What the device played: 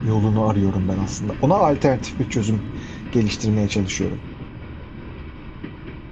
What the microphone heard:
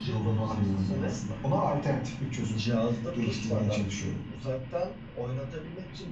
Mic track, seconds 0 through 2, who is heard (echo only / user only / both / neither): both